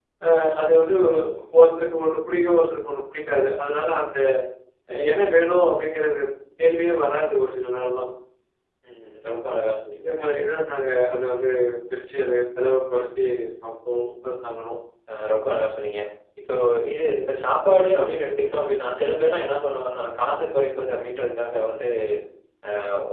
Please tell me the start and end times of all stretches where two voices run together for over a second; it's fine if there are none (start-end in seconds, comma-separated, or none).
none